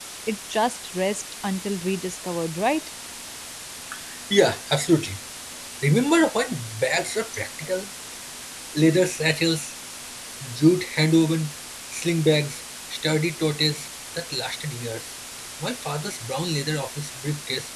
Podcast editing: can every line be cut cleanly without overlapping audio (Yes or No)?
Yes